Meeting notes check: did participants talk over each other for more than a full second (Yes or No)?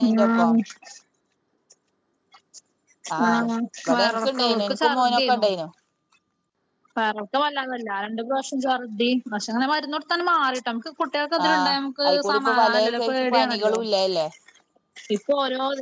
Yes